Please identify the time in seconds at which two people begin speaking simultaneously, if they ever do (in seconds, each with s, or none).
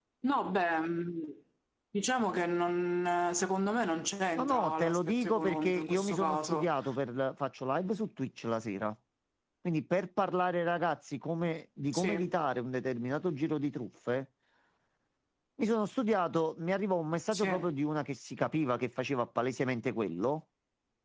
4.4 s